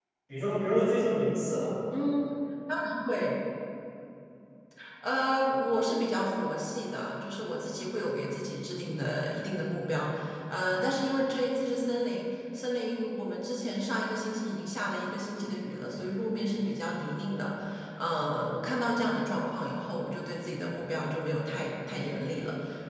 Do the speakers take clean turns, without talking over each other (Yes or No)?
Yes